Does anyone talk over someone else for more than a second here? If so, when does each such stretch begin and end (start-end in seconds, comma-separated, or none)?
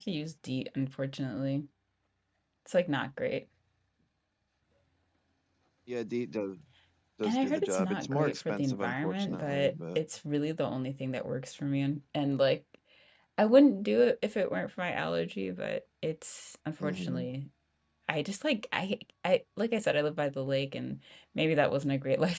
7.2-10.0